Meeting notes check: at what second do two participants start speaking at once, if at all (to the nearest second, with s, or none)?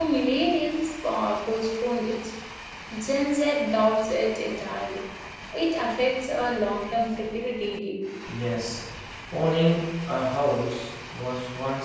none